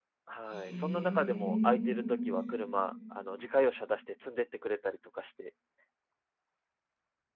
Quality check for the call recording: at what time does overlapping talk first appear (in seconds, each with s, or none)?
0.5 s